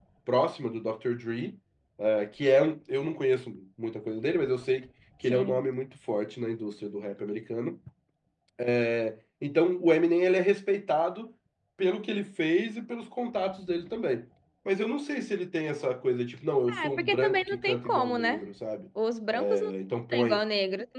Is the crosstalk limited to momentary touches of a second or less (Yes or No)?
No